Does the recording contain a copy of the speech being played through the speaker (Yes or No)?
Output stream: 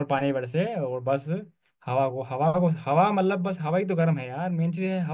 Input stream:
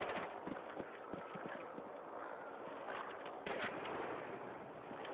No